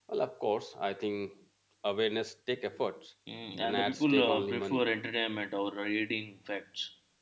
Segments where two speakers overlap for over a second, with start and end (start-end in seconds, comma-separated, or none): 3.6-4.8